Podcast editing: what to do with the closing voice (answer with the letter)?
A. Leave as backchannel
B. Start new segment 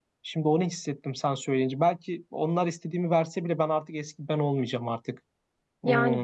B